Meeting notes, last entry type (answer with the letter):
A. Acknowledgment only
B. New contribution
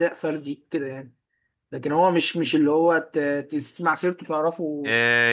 B